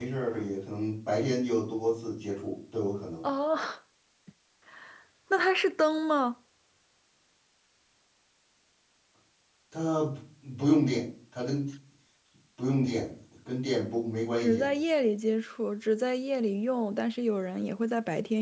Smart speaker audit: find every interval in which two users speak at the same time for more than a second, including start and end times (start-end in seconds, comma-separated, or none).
none